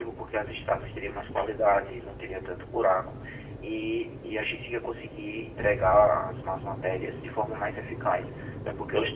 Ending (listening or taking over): listening